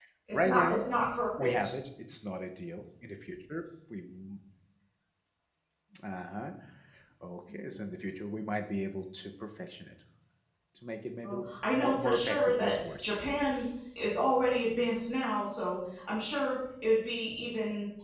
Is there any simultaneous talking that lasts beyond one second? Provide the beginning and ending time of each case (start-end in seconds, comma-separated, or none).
11.2-13.1